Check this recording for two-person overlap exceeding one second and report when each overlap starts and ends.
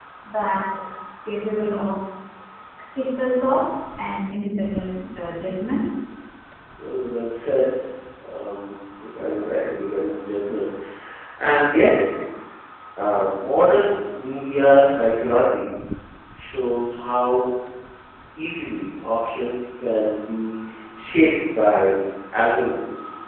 none

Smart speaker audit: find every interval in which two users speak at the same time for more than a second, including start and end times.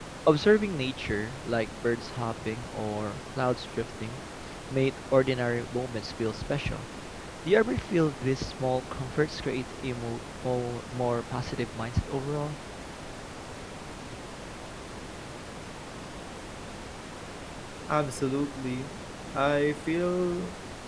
none

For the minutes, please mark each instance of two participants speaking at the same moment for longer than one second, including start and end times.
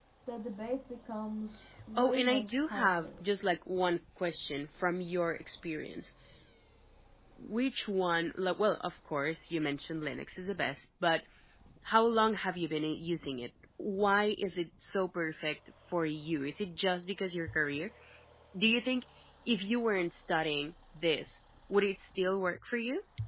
1.9-3.2

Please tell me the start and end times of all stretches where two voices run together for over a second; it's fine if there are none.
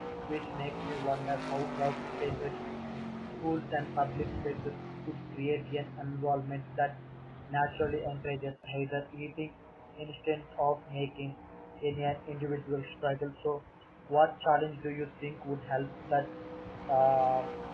none

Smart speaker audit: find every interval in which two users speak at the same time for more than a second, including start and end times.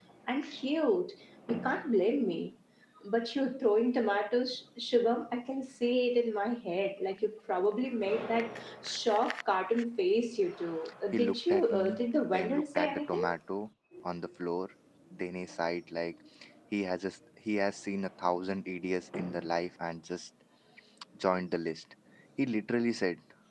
11.1-13.3

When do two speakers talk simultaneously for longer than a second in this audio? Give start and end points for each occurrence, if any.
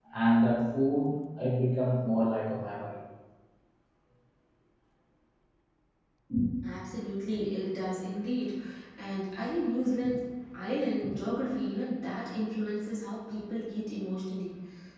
none

